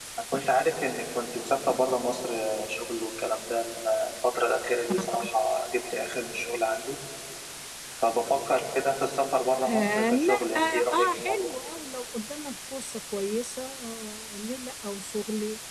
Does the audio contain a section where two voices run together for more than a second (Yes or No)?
Yes